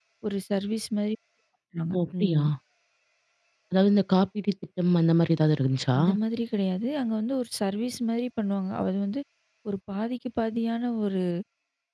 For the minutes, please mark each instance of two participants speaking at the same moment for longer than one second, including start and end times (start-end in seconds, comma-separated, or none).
none